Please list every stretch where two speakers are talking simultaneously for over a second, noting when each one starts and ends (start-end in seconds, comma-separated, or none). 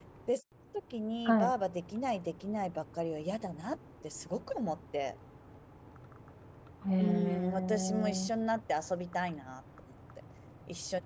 7.0-8.3